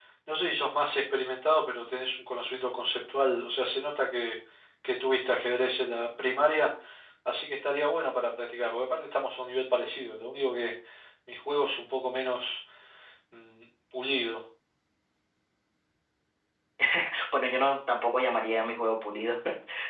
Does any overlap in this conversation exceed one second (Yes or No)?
No